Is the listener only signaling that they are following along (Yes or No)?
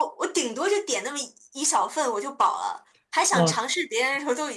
Yes